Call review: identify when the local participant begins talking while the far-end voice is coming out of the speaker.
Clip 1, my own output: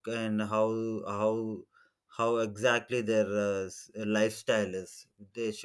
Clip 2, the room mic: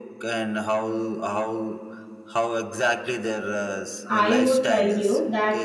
4 s

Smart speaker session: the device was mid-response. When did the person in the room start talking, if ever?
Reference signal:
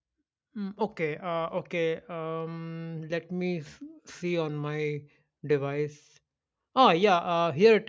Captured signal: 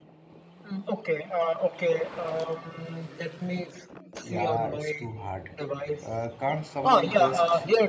4 s

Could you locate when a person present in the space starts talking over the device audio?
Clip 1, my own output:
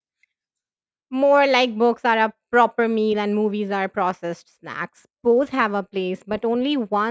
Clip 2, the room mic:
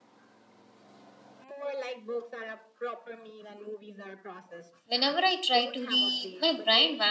5 s

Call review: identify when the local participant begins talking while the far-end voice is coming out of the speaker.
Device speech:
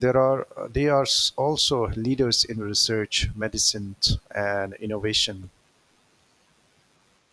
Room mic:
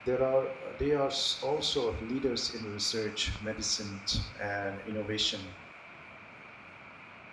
none

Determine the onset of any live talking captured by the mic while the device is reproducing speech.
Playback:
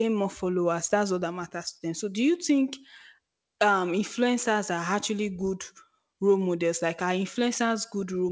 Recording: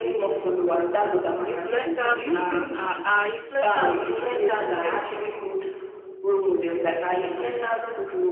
1 s

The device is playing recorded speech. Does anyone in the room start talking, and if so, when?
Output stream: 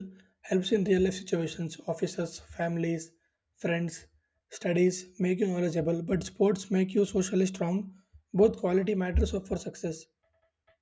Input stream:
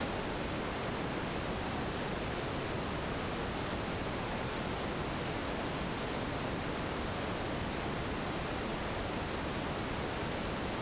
none

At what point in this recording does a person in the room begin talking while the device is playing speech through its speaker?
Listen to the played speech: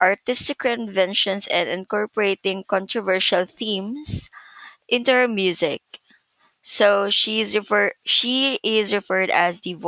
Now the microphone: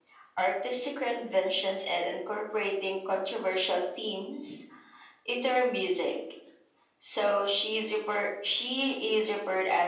none

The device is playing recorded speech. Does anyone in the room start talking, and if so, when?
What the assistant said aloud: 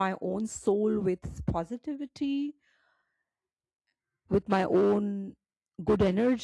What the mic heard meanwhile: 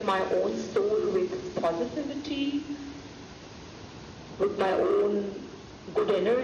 none

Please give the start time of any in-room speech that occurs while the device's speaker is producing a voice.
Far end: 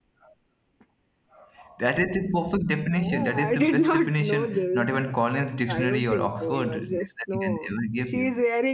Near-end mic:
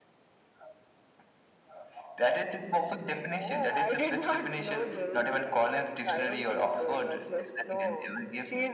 none

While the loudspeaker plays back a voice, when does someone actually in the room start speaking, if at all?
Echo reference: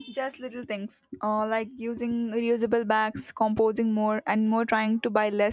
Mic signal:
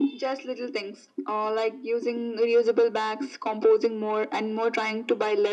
none

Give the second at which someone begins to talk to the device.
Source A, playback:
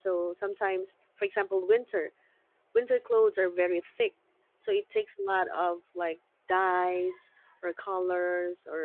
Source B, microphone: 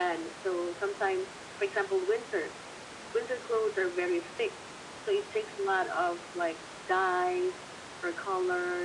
none

